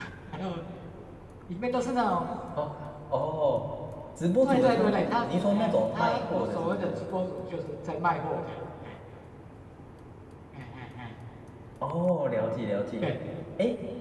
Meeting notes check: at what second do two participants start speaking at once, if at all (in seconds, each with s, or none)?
4.4 s